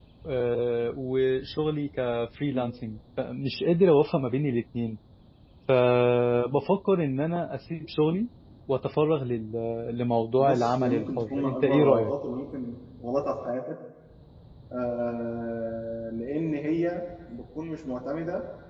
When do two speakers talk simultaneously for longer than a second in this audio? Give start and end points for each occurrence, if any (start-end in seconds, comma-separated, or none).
10.4-12.1